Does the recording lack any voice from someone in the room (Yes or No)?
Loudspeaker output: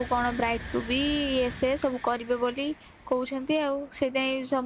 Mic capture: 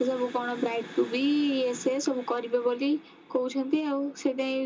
Yes